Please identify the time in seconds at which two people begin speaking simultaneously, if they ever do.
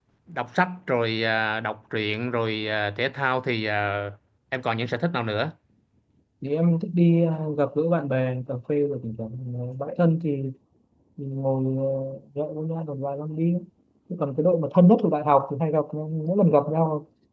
none

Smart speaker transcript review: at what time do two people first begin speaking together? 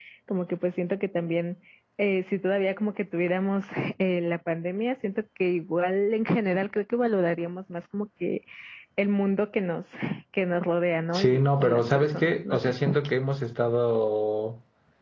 11.2 s

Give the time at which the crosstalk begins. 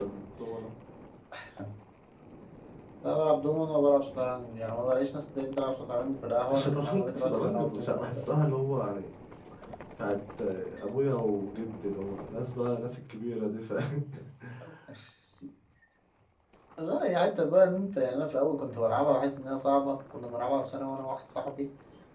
6.5 s

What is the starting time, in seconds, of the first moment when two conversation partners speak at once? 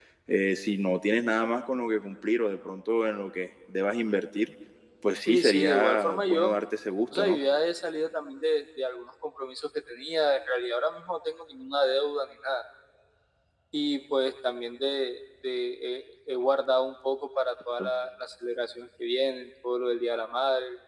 5.2 s

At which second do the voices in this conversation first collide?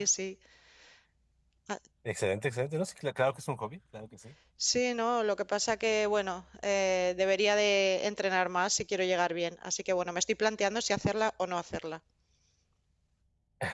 none

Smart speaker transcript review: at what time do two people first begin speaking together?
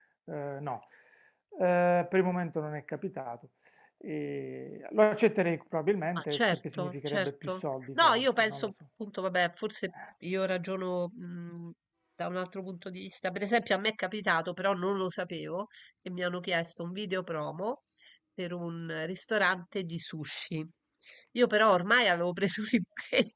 6.2 s

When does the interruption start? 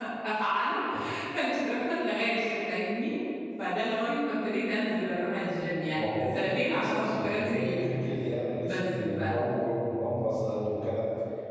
5.9 s

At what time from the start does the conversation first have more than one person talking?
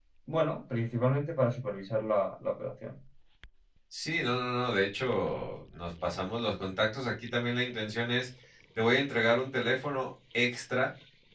none

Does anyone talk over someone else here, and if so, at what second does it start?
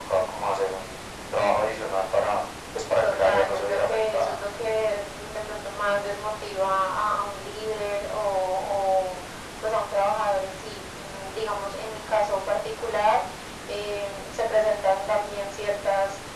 3.0 s

